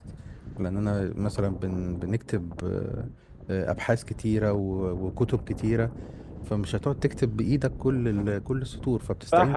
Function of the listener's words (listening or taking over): taking over